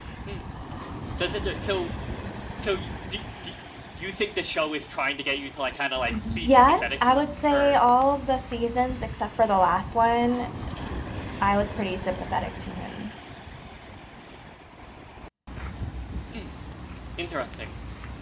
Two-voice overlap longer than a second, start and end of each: 6.1-7.8

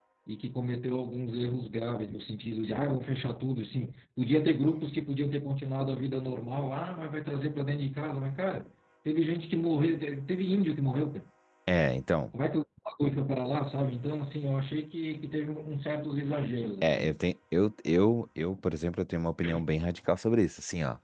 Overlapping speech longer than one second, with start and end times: none

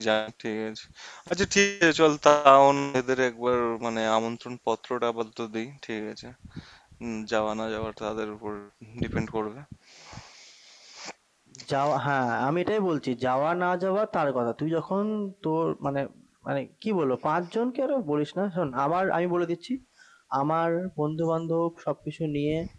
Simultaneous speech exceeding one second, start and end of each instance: none

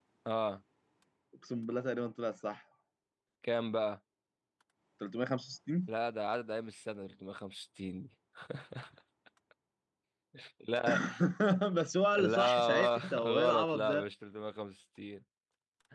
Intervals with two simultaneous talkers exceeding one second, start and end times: 12.2-14.1

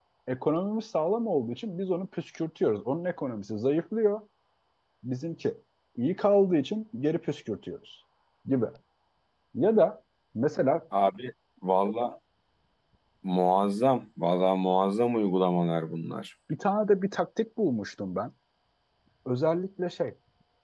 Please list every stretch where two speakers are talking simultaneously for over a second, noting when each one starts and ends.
none

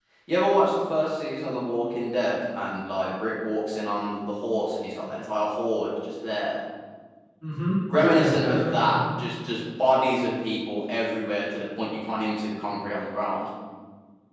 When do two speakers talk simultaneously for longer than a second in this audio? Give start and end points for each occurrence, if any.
7.9-9.3

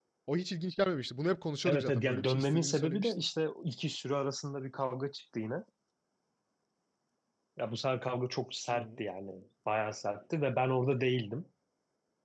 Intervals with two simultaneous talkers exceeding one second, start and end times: 1.6-3.3

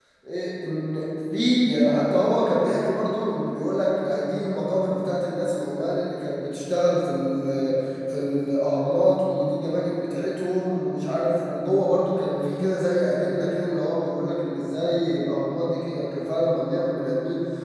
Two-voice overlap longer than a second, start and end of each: none

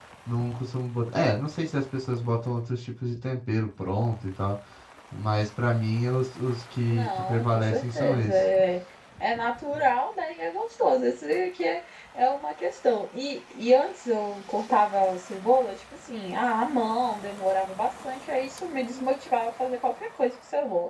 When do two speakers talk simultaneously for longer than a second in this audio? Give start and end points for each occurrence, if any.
6.9-8.4

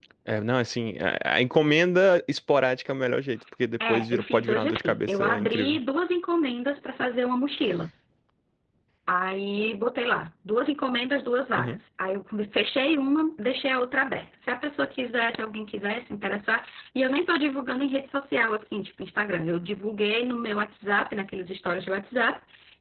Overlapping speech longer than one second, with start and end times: 3.9-5.8

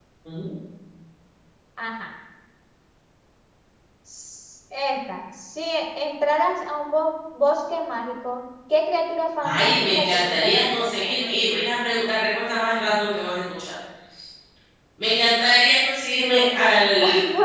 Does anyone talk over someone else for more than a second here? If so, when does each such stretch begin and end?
9.4-11.1

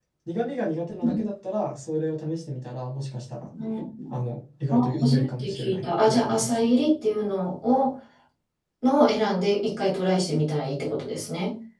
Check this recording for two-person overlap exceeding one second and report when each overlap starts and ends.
4.7-6.7

